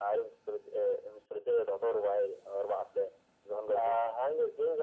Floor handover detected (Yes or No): Yes